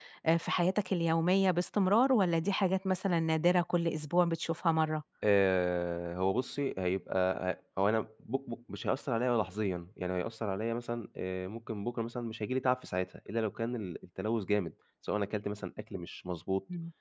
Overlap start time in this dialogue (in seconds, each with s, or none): none